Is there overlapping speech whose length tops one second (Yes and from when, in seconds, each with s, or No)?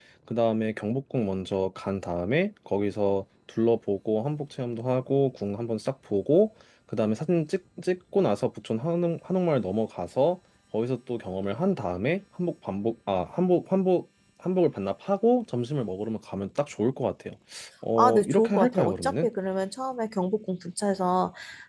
Yes, from 18.0 s